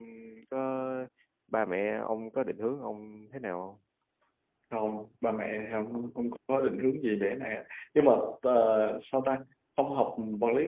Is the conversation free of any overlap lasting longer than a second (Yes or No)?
Yes